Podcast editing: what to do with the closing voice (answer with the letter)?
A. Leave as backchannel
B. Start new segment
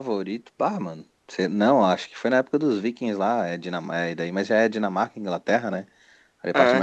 A